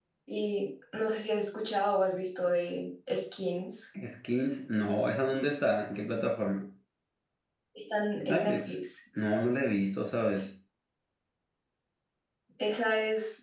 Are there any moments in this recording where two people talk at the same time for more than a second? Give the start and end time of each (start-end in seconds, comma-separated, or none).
none